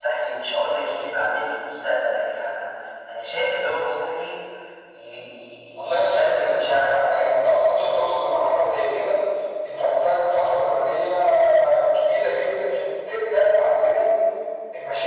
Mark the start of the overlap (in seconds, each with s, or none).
5.8 s